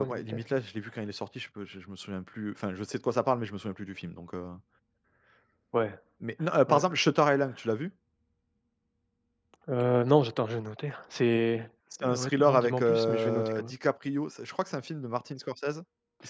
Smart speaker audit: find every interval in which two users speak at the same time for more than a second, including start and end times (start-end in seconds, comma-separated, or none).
12.0-13.7